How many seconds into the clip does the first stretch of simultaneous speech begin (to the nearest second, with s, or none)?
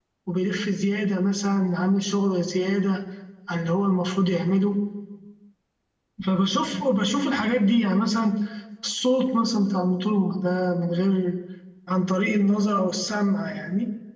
none